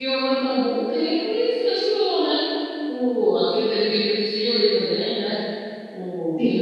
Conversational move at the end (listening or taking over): taking over